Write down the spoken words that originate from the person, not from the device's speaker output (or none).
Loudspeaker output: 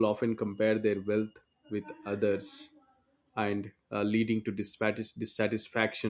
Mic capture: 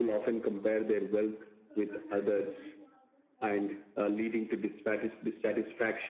none